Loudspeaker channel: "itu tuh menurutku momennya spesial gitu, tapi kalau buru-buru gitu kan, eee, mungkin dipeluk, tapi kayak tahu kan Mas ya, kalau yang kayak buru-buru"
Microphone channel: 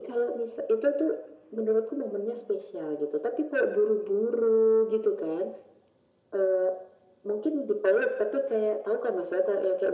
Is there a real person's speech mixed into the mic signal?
No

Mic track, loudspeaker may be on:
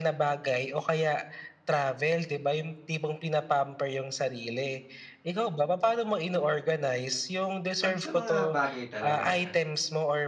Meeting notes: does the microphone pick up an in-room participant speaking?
Yes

